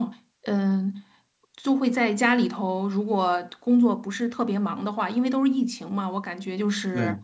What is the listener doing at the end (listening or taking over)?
listening